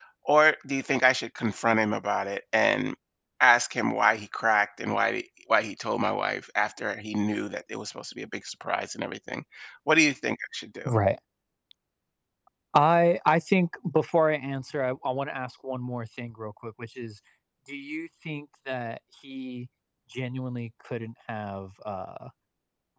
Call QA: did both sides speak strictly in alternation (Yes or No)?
Yes